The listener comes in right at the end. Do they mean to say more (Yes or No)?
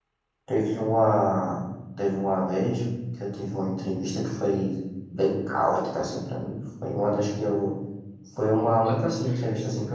No